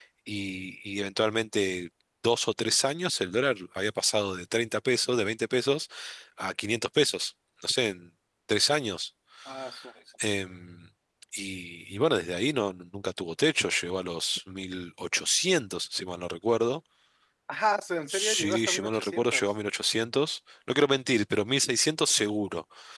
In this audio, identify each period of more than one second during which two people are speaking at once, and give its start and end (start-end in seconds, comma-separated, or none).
18.1-19.4